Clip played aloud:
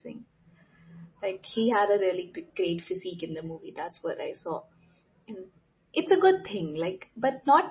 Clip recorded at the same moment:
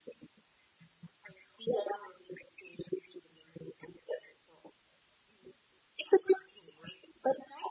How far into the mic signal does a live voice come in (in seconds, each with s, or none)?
none